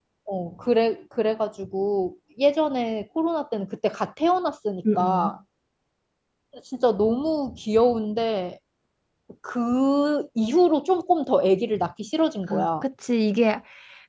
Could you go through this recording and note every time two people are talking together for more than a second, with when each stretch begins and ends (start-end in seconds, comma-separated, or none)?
none